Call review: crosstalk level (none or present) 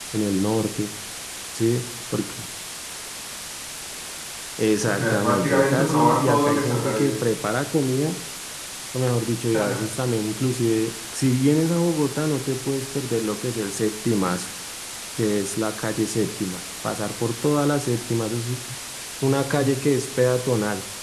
present